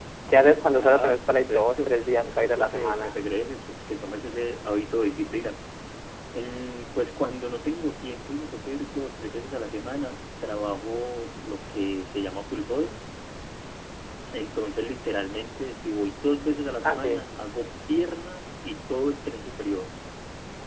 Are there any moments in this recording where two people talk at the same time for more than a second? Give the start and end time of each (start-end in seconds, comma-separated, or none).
0.7-3.2